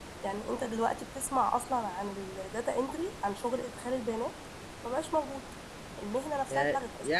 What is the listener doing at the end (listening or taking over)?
taking over